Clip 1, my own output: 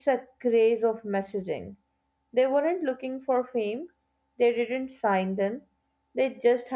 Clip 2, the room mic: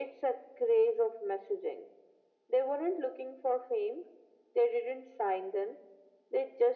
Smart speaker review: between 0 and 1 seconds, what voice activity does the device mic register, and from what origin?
echo only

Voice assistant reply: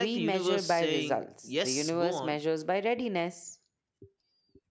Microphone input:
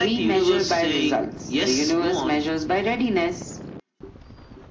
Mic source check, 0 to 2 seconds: echo only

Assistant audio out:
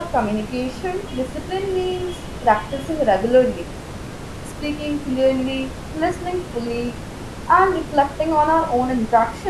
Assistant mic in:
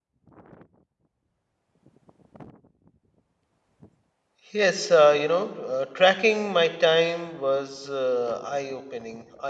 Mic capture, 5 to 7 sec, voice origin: user only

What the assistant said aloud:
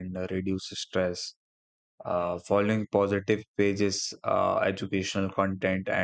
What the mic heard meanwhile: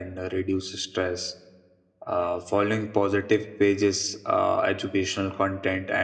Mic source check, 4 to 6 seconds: echo only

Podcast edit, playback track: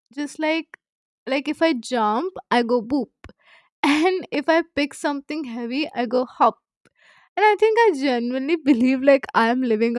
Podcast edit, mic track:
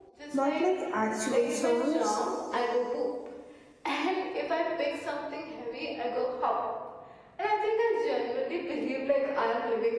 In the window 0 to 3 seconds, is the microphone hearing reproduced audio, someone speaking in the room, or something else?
both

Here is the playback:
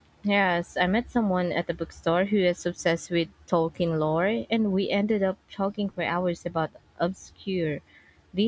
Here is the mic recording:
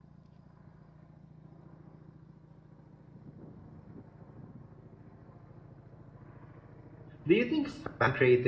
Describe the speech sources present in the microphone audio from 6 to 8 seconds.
user only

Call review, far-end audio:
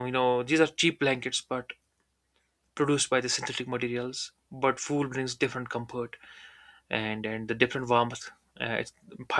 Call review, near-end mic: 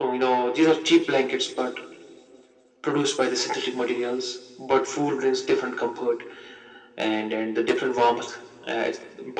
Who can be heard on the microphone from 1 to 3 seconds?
echo only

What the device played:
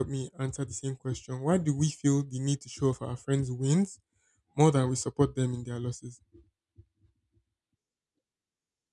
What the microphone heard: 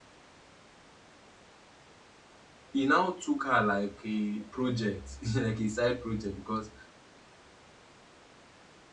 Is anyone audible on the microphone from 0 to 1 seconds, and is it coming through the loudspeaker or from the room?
neither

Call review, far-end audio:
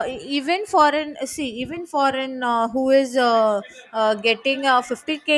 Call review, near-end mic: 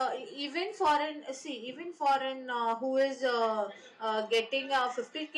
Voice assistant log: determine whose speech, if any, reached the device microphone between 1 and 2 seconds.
echo only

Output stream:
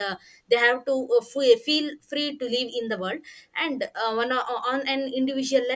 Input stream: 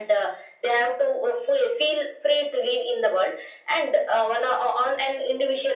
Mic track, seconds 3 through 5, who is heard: echo only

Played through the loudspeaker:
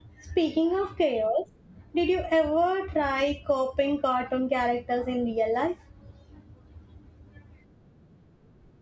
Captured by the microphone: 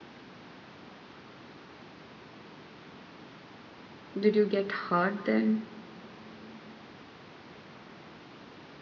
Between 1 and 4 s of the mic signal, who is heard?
neither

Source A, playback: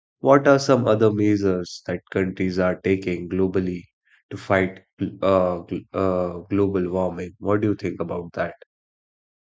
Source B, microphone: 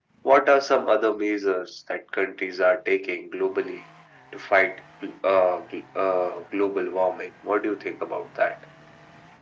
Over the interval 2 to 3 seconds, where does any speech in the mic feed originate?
echo only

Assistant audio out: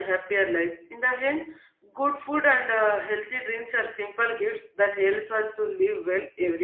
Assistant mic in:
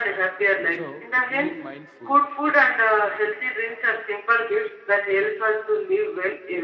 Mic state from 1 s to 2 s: both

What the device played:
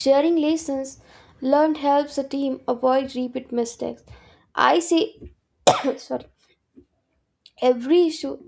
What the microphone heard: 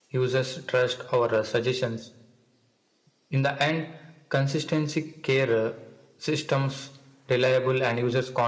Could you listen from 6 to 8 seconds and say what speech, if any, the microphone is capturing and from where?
user only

